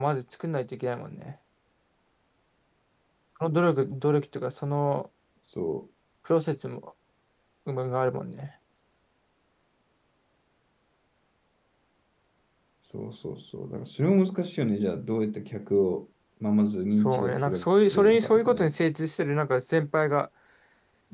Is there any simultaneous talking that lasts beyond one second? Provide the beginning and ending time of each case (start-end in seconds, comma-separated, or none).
17.0-18.7